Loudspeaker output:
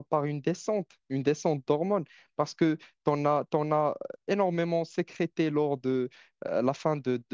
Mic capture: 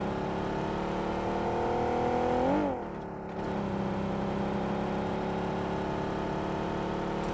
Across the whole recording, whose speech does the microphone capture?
neither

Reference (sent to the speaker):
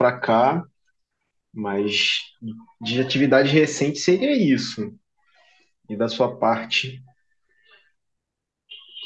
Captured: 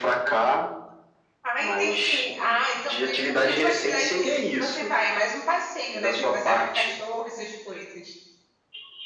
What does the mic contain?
both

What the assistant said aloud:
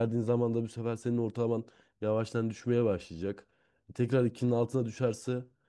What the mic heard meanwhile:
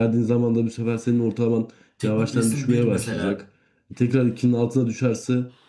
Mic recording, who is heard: both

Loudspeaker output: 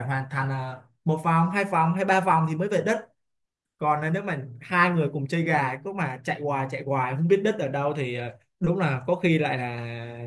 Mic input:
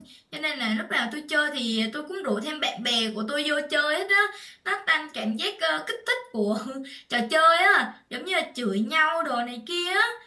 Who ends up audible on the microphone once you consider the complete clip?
user only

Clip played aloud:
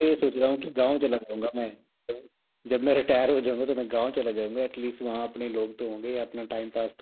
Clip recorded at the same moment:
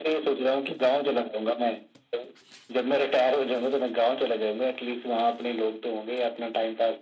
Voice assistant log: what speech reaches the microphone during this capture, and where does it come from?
echo only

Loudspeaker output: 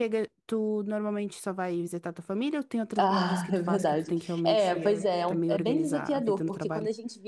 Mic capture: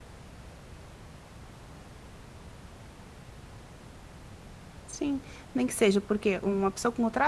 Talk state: user only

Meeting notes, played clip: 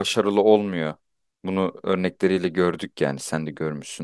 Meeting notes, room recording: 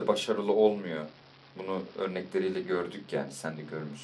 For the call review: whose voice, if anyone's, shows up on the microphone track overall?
echo only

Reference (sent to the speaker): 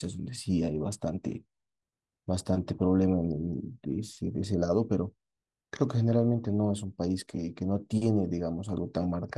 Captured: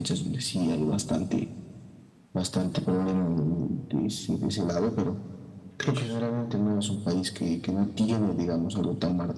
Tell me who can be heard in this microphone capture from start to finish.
both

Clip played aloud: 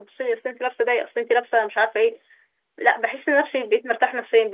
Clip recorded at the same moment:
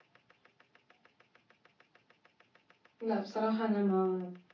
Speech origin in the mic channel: user only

